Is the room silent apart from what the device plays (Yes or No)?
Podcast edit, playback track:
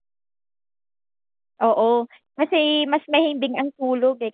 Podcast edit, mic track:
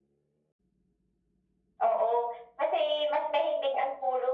Yes